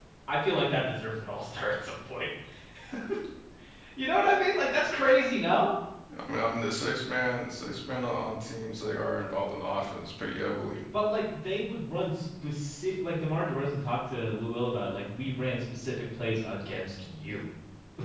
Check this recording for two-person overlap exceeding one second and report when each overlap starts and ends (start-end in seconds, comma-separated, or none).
none